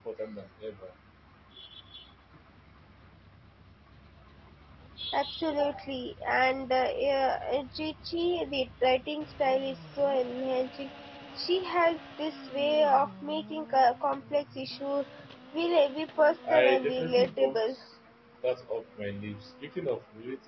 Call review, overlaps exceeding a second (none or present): present